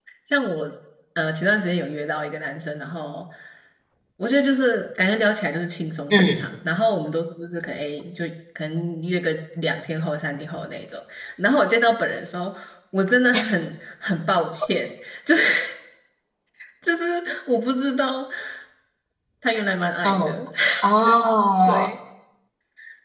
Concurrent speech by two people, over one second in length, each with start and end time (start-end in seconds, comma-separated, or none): none